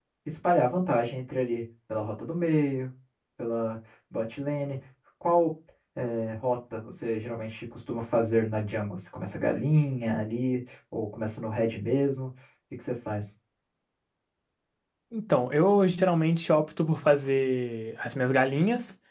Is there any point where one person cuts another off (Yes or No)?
No